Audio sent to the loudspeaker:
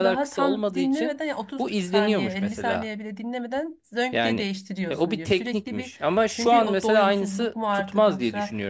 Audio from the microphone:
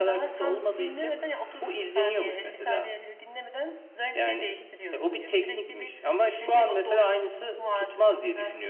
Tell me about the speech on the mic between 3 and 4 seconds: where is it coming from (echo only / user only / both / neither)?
echo only